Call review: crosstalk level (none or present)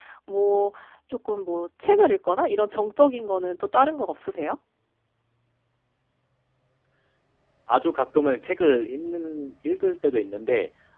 none